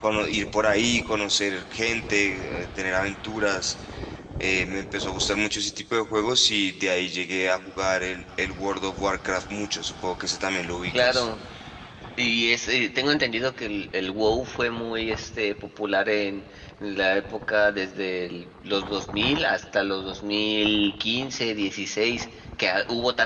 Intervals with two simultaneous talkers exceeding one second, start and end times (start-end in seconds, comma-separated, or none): none